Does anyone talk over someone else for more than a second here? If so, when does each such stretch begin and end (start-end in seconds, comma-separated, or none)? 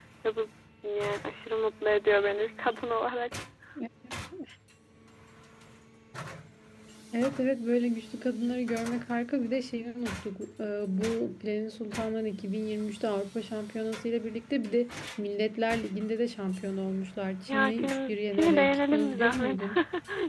17.5-19.6